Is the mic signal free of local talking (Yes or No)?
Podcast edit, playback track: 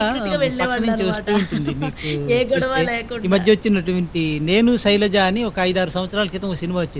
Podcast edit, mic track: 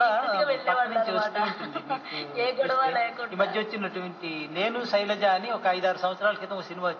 Yes